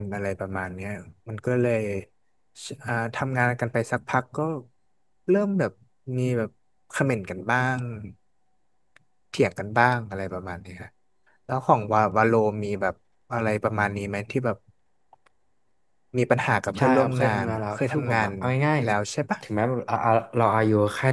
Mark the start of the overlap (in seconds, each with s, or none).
16.8 s